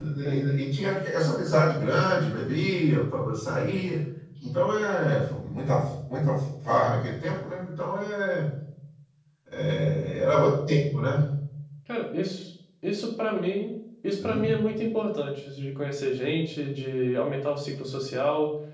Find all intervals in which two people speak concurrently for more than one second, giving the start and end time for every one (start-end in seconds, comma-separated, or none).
none